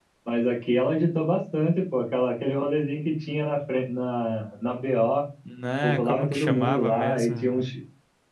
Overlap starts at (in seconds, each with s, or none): 5.8 s